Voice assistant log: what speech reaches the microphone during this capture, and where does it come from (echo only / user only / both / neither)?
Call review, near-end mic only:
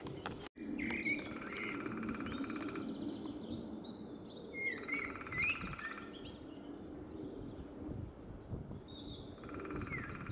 neither